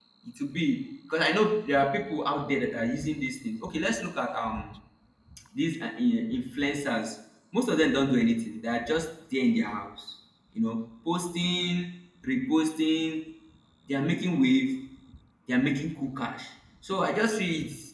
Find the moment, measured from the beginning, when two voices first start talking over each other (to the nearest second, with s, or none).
none